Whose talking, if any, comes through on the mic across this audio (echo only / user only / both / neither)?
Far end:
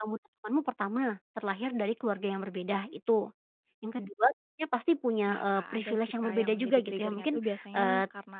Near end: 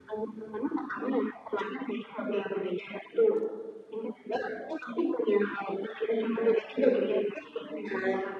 echo only